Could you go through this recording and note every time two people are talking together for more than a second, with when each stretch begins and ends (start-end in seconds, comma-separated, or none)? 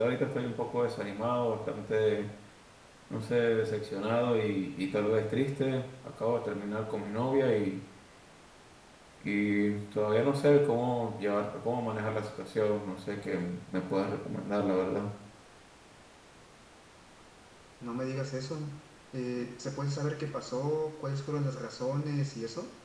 none